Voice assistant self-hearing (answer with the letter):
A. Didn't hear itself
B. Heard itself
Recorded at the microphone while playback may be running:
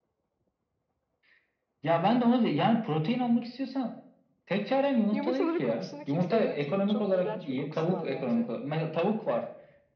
B